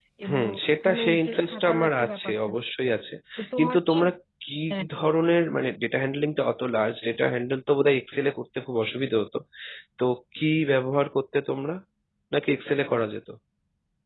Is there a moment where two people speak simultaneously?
Yes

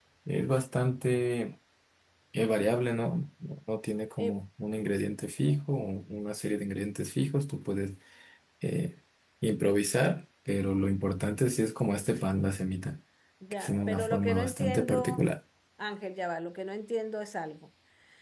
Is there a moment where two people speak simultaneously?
Yes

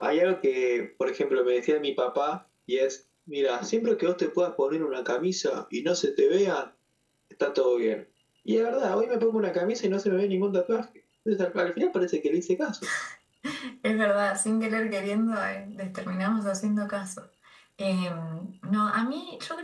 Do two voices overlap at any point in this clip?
No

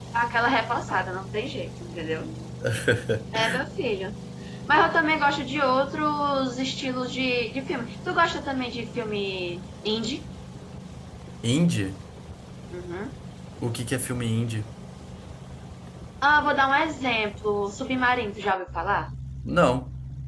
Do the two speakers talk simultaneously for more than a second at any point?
No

